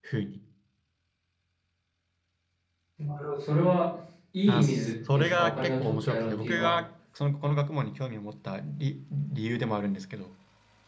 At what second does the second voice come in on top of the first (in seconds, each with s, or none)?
4.5 s